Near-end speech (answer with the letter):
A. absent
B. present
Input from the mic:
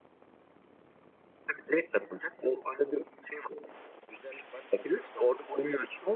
A